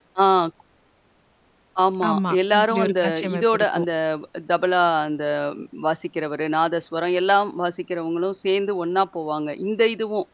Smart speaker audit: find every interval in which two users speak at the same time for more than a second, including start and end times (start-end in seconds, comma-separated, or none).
2.1-3.9